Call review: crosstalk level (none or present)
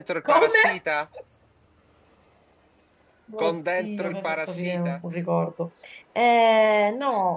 present